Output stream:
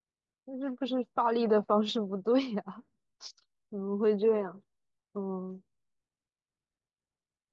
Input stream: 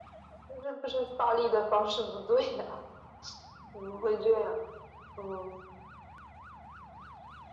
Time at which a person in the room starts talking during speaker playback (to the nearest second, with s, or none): none